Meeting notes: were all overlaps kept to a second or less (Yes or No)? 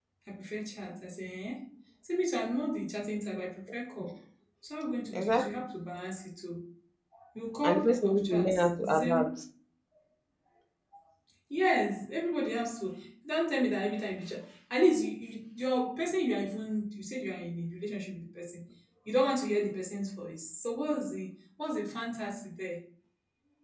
No